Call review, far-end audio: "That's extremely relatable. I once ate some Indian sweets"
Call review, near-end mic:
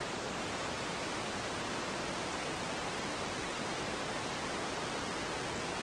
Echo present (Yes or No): No